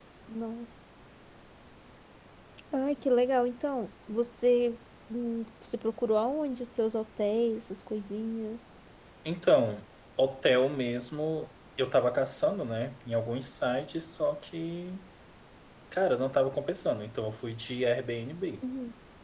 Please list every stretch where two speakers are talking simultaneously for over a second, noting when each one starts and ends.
none

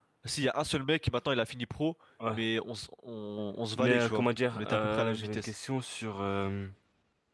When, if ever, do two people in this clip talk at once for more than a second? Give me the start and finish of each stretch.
3.8-5.5

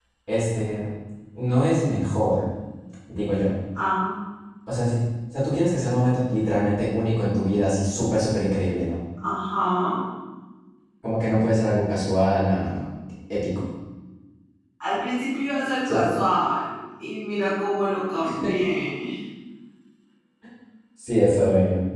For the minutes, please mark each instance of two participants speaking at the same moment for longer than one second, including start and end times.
none

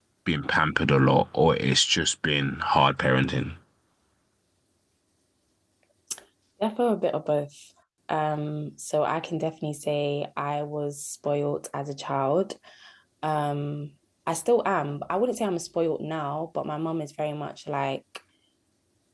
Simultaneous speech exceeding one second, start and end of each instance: none

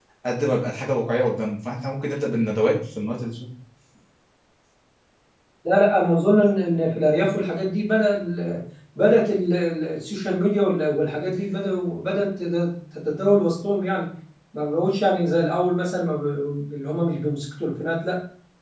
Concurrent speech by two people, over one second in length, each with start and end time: none

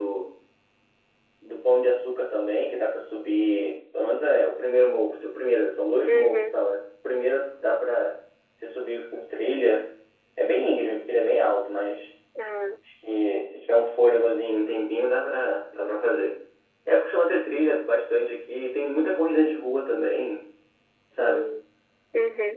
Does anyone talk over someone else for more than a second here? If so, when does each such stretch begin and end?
none

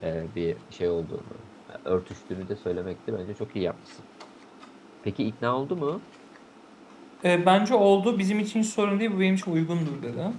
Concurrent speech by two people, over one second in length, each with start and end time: none

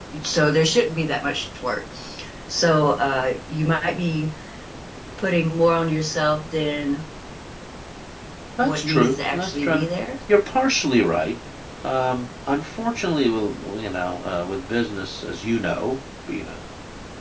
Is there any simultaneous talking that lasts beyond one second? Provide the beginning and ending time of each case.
8.6-9.9

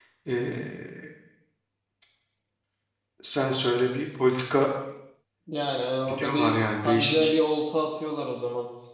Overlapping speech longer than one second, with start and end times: 6.1-7.3

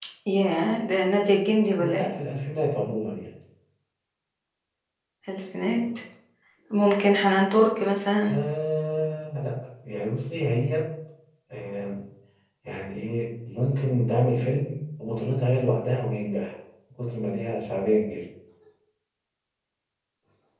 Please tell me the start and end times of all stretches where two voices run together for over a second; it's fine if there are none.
none

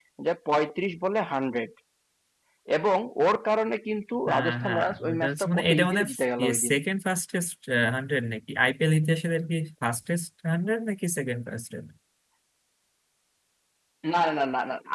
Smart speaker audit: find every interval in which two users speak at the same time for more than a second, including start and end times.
4.3-6.0

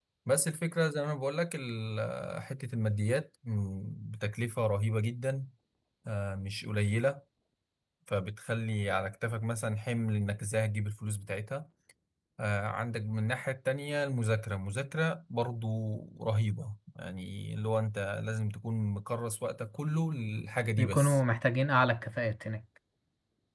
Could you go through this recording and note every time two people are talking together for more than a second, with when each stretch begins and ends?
none

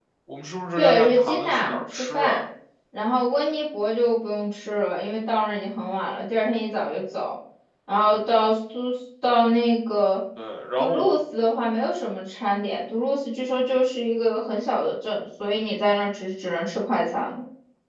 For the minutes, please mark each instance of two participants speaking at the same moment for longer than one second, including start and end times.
0.8-2.4

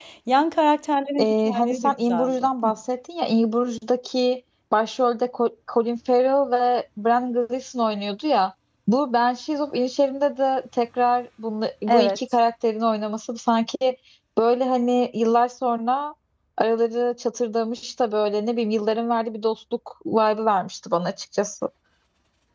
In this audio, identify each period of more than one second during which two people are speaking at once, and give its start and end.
1.2-2.7

